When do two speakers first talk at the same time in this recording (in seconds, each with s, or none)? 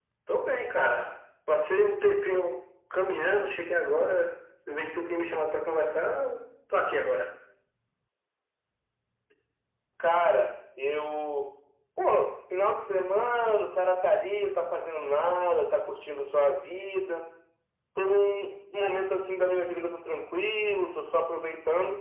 none